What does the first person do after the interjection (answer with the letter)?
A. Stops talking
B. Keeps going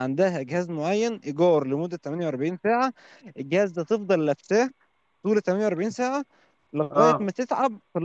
B